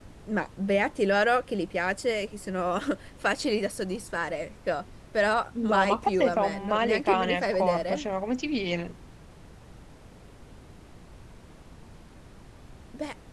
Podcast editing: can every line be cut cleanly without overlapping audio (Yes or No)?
No